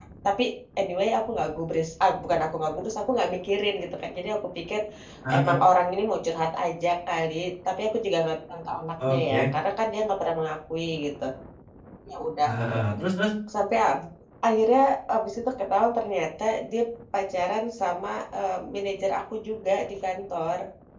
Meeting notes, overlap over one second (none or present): none